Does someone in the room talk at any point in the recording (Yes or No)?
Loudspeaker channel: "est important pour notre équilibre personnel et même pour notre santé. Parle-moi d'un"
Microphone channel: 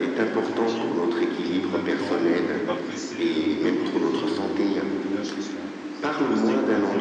Yes